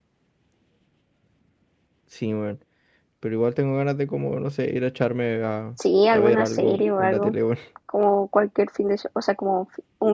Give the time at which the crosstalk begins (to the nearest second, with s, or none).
6 s